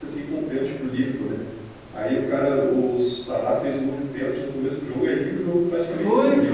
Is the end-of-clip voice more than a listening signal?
Yes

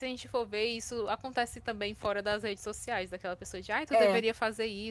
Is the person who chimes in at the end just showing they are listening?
Yes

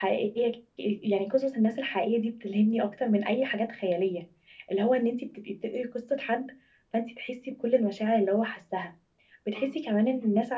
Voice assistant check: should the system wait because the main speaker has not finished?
Yes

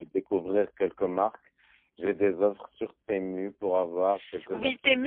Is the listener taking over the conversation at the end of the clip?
Yes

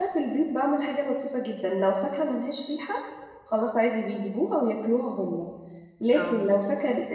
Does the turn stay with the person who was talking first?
Yes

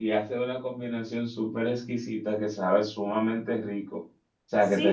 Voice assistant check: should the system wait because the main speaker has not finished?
No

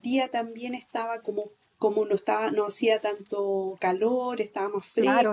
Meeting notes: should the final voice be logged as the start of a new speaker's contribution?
Yes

